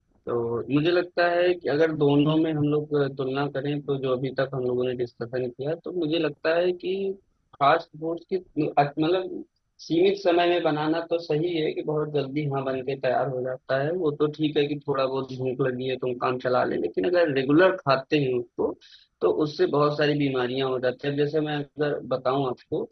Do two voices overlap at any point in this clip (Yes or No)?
No